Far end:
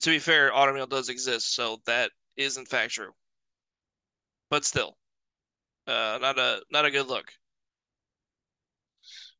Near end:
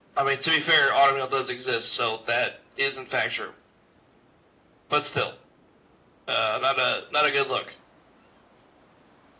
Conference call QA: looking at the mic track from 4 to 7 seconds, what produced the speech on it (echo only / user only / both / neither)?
echo only